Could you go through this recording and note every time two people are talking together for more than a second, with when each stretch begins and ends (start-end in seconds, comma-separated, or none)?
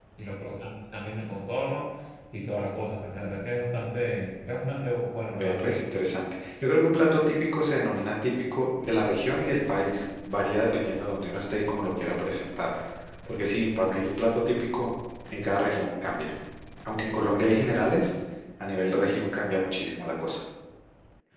none